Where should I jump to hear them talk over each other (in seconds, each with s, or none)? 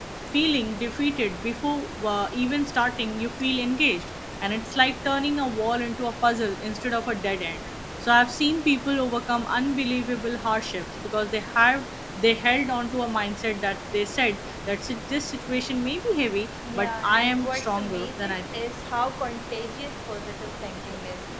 16.6 s